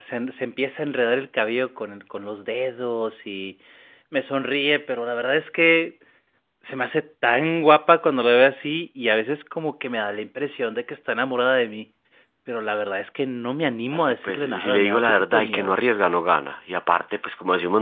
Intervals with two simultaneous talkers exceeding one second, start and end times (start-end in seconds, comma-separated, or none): 13.9-15.7